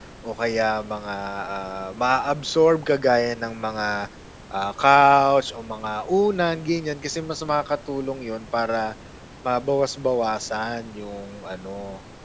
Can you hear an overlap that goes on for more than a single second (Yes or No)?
No